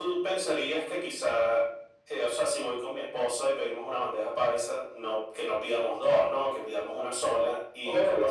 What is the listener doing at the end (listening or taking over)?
listening